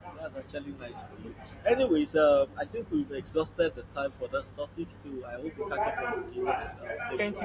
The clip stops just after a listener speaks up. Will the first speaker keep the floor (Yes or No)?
No